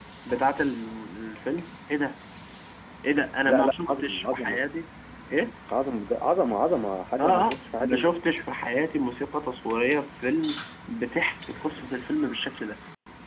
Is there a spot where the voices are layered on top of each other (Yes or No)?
Yes